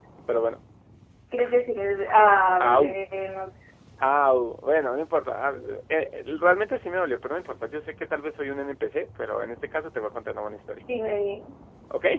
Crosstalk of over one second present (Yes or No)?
No